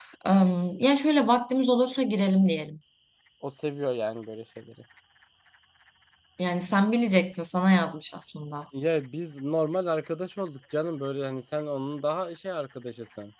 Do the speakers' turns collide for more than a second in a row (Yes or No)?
No